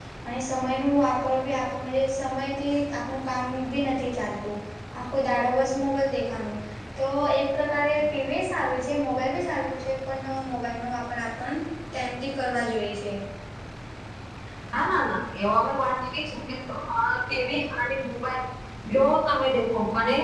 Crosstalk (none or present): none